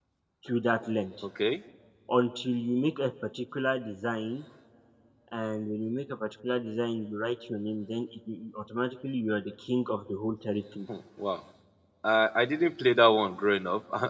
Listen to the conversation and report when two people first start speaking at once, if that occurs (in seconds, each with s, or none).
none